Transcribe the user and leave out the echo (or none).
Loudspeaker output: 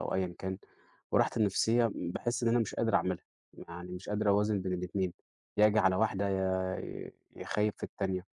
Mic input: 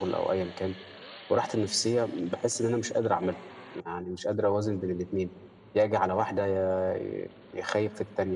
none